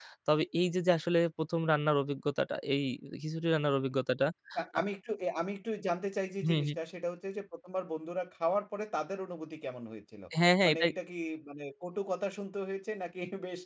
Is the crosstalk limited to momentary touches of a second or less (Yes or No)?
Yes